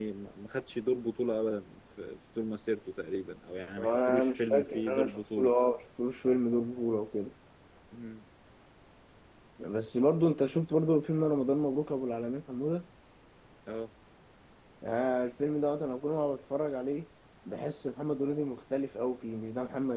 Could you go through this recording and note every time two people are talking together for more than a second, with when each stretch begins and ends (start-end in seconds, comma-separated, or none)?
3.8-5.5